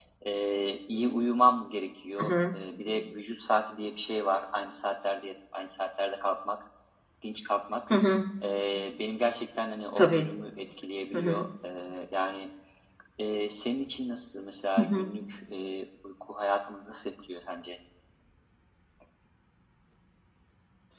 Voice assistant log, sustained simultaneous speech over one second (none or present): none